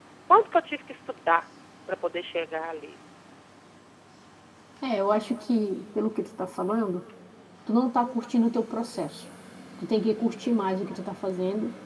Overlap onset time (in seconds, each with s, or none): none